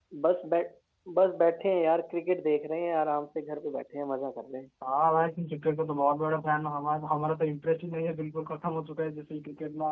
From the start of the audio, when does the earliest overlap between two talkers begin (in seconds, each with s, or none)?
none